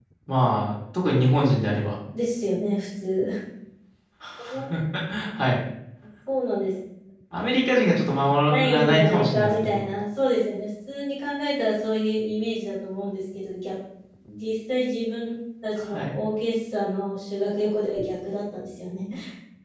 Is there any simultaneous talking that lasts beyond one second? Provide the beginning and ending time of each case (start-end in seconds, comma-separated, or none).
8.5-9.9